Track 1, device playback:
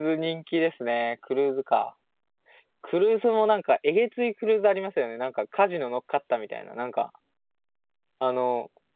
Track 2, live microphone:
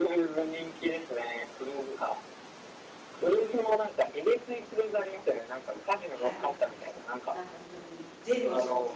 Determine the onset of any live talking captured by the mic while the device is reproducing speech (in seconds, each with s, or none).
6.1 s